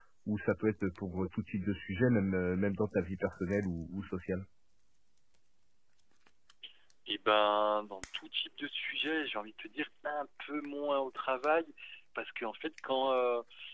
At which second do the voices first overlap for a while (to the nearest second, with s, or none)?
none